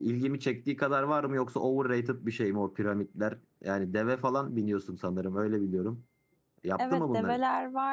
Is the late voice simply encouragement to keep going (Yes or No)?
No